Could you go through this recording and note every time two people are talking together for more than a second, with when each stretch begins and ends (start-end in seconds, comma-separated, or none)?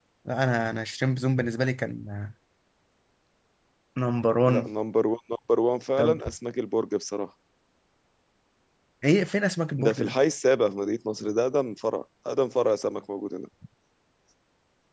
none